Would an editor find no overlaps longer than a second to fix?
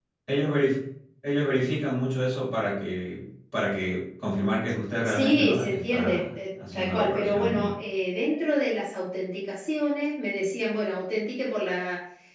No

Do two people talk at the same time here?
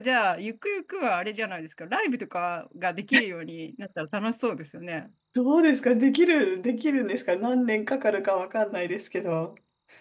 No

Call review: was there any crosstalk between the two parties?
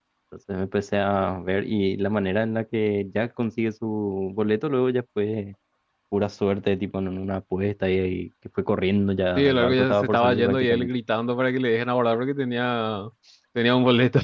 Yes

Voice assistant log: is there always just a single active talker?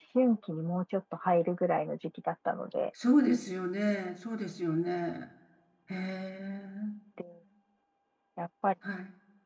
Yes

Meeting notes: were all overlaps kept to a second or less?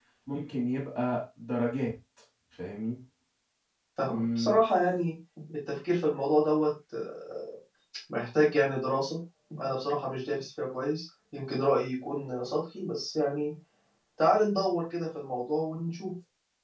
Yes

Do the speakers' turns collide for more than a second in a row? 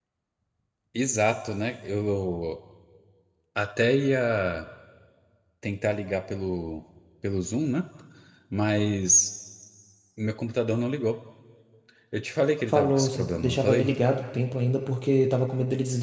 Yes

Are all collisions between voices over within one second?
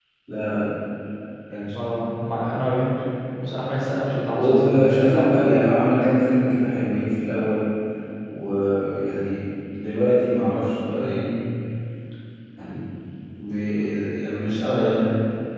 No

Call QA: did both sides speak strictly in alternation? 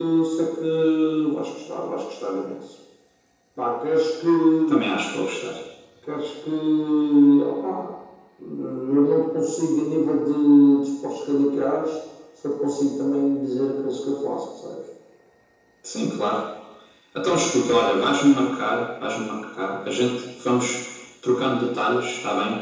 Yes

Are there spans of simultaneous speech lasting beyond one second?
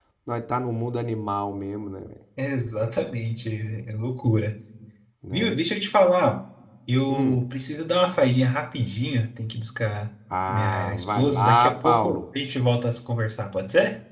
Yes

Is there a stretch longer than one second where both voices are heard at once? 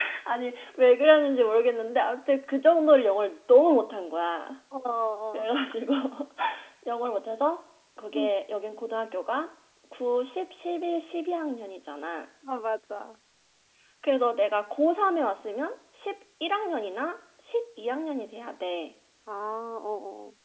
No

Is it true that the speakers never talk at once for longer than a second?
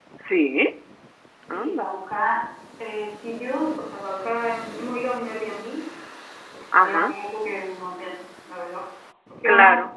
Yes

